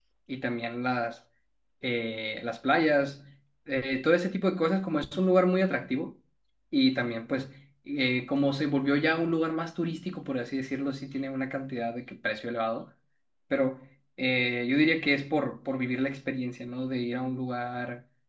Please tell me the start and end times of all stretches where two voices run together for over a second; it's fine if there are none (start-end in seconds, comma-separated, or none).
none